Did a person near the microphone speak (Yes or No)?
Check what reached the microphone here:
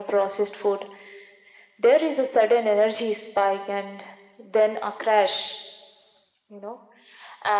No